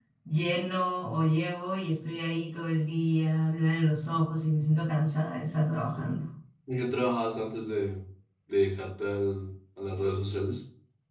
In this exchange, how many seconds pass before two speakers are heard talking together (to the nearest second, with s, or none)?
none